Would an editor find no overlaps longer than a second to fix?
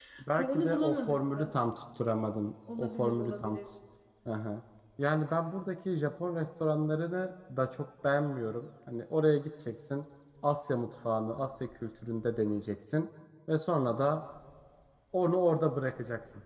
No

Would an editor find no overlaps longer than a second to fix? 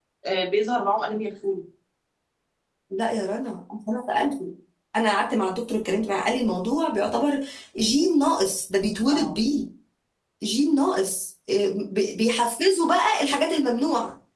Yes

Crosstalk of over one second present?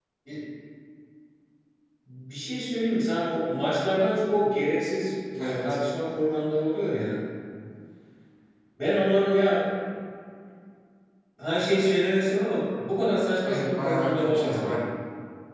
Yes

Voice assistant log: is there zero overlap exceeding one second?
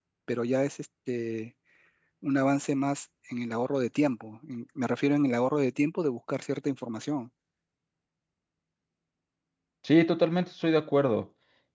Yes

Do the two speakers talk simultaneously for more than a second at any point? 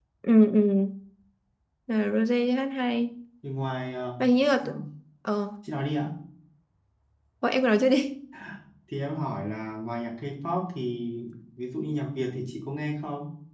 No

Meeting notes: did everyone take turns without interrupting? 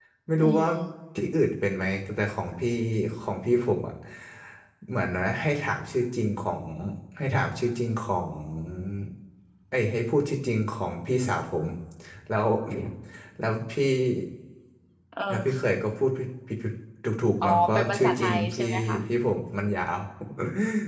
No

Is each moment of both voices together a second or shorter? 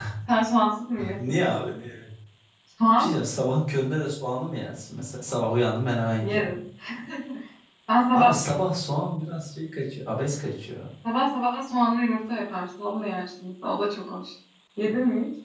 Yes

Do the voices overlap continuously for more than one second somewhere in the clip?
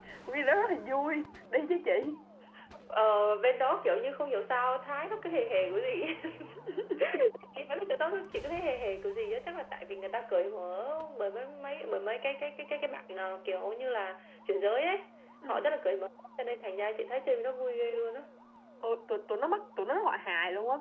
No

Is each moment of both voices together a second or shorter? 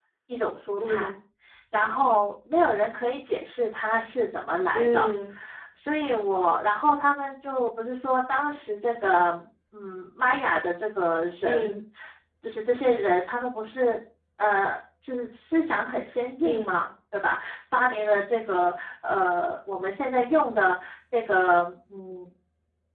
Yes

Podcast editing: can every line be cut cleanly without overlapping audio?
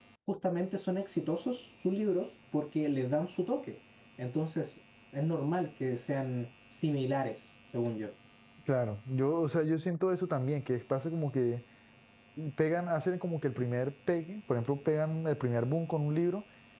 Yes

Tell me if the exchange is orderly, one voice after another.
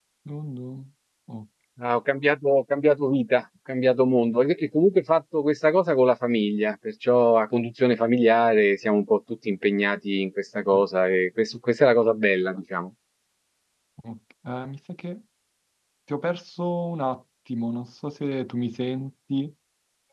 Yes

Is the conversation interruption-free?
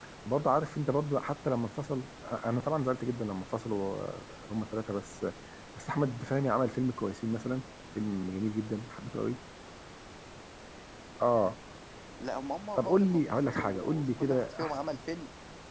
No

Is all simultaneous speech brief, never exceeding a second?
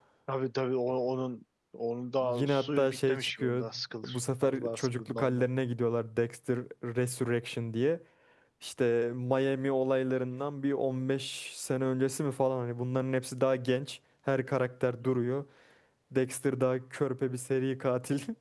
No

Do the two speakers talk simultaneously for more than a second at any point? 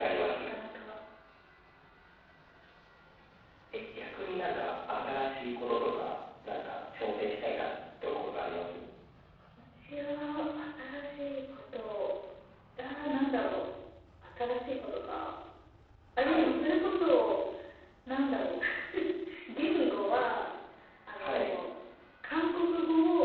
No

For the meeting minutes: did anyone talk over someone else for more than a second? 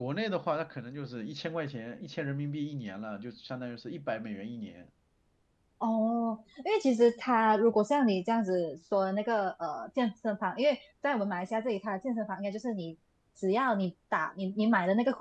No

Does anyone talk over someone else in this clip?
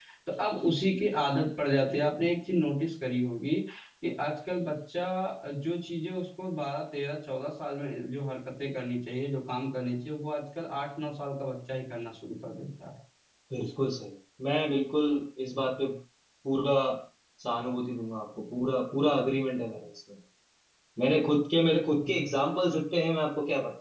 No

